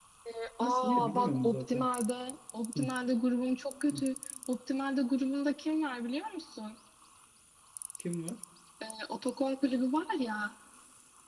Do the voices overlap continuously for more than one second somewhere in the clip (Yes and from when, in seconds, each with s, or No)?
Yes, from 0.6 s